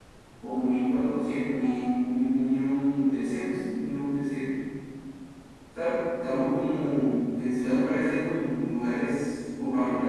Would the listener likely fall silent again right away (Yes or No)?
No